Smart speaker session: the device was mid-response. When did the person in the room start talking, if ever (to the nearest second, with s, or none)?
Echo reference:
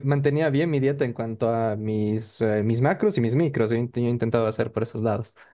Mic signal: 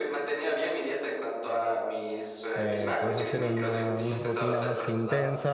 3 s